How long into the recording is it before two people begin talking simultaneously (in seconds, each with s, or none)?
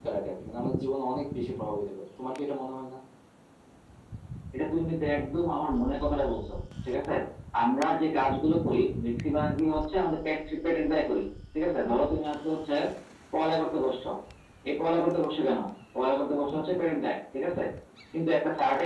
none